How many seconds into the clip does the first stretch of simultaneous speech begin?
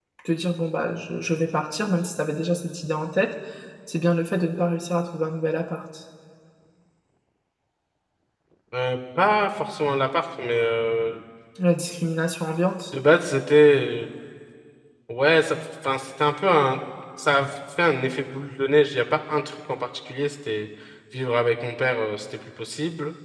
none

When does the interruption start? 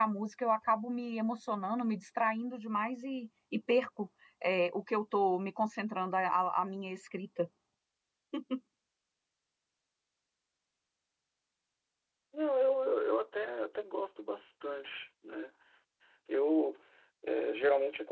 none

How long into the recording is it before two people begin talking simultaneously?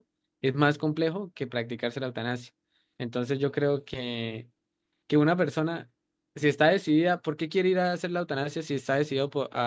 none

